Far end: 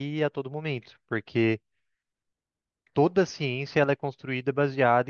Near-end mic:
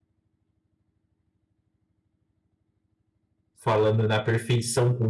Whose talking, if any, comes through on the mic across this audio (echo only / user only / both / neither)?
user only